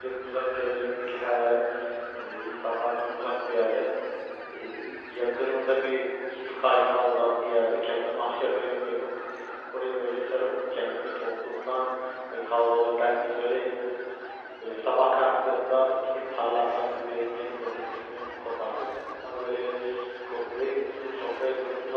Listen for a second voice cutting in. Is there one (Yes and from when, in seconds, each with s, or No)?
No